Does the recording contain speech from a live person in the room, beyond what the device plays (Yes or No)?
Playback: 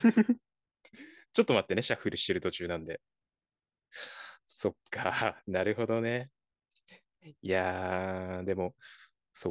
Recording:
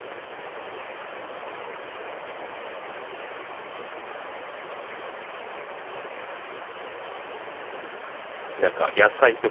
Yes